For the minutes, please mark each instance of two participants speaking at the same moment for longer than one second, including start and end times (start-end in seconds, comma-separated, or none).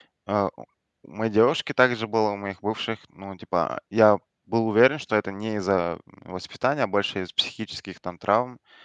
none